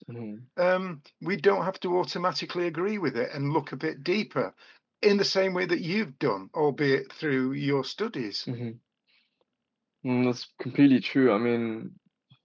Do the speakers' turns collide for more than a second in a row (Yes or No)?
No